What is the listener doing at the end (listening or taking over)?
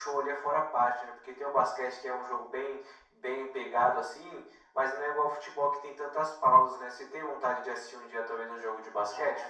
taking over